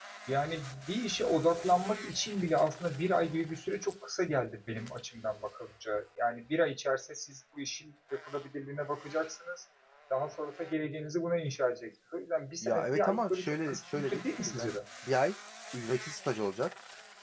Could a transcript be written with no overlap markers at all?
No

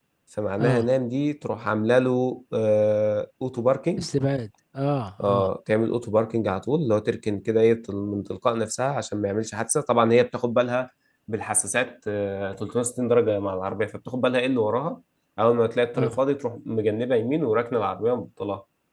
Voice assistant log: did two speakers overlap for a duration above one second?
No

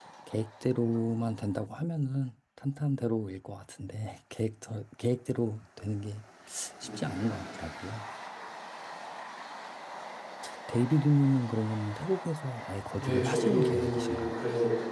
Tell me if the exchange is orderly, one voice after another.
No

